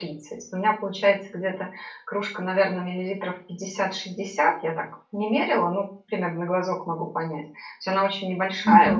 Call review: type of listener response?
listening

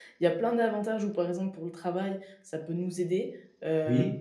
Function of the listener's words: listening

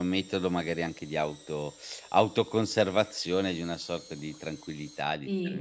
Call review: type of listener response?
taking over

